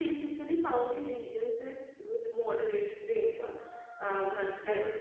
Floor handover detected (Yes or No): No